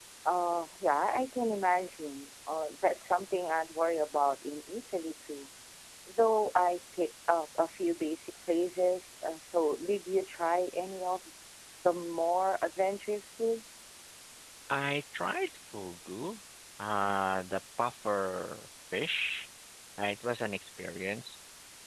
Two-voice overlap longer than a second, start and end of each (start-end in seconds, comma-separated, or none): none